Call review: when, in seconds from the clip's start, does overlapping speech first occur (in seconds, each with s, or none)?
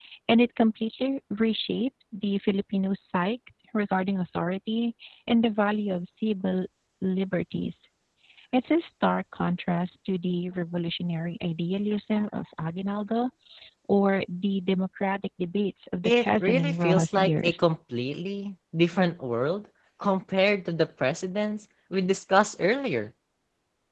16.0 s